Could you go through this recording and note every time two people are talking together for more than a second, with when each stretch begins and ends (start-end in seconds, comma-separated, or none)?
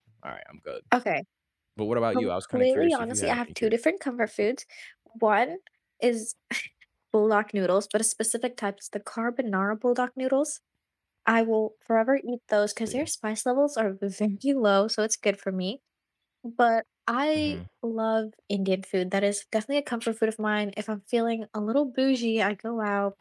2.1-3.5